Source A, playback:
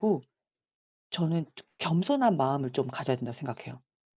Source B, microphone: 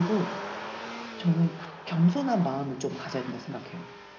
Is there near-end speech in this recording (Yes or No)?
No